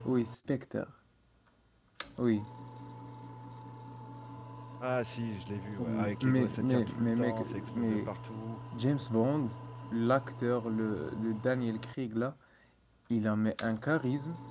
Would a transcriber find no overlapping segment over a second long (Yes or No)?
No